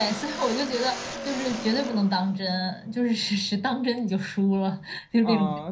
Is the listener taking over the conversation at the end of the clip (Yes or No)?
Yes